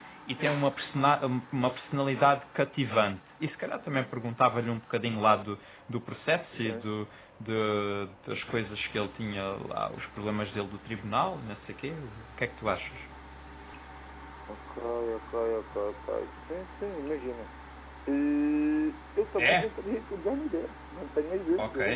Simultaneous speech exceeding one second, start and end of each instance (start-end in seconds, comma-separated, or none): none